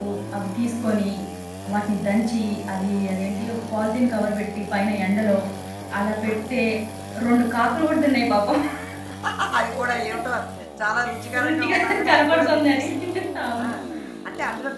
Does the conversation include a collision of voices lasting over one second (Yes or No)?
Yes